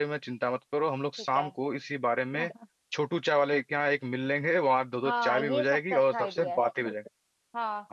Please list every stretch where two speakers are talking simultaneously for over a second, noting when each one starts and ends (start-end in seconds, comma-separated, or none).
5.0-6.6